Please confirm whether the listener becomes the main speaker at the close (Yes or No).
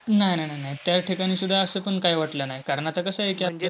No